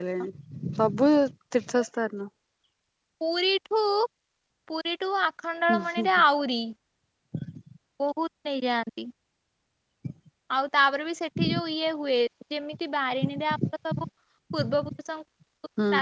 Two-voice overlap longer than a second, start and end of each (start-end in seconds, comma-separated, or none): none